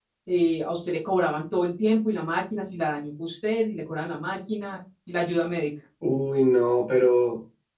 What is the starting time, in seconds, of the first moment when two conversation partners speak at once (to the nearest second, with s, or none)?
none